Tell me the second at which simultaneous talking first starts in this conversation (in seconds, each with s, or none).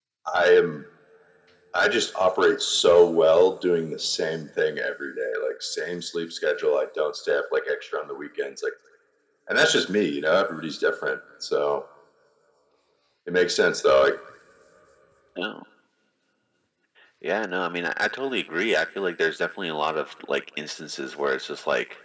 none